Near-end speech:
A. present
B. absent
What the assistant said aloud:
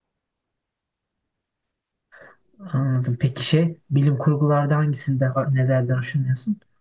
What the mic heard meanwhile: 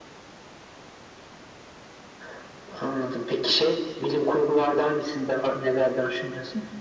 B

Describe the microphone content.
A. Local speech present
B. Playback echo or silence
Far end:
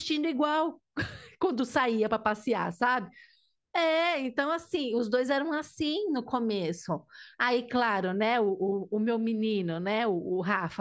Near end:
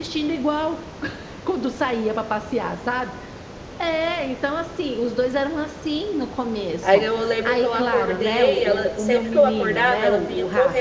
A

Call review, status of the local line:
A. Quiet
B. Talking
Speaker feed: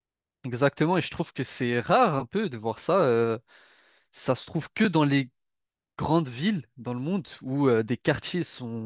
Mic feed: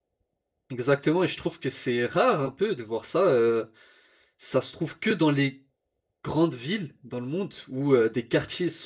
A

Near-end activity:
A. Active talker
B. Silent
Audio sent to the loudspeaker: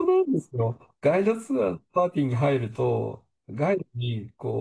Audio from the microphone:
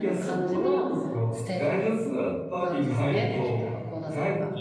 A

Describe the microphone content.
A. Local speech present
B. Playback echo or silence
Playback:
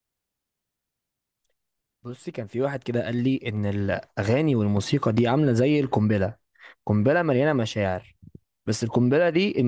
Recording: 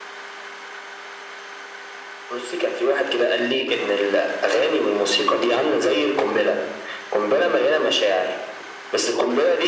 B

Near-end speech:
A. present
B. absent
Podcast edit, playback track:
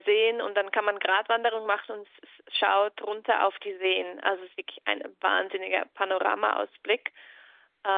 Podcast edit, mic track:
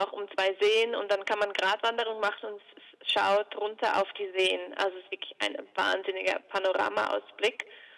B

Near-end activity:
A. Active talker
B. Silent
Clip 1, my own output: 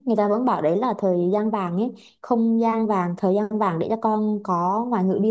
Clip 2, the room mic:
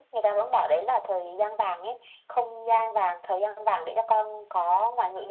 B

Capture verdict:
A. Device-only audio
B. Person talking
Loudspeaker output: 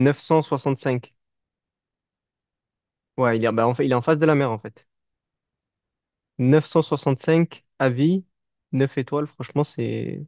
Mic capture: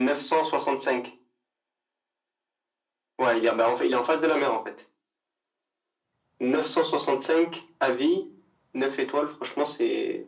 A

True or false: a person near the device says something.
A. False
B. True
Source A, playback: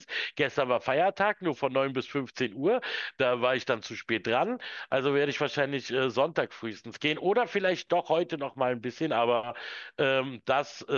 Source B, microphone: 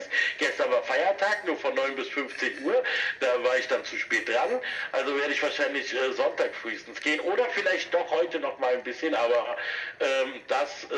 A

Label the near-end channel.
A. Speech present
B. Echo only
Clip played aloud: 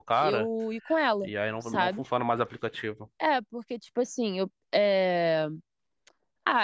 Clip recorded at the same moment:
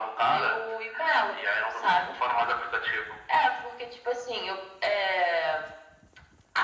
B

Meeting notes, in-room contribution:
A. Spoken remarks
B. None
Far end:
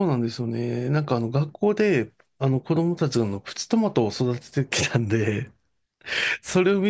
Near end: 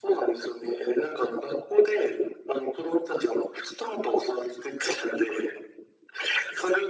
B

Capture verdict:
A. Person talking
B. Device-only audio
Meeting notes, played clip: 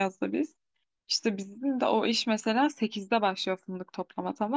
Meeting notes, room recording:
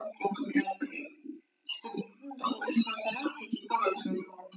B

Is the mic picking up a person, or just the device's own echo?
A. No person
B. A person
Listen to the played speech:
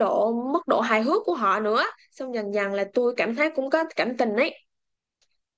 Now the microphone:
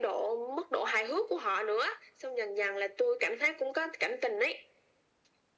A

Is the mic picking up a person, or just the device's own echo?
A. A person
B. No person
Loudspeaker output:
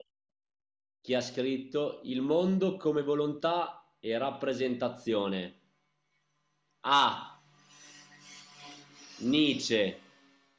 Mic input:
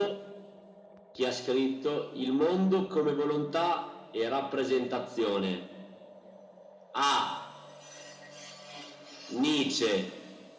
B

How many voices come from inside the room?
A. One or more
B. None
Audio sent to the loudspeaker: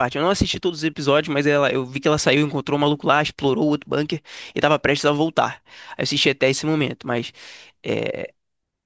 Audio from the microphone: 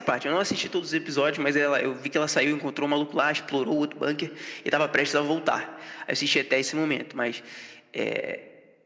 B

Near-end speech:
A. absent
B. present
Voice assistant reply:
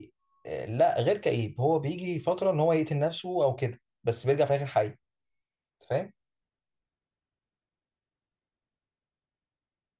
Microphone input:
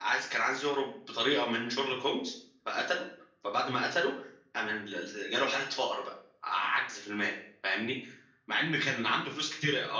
B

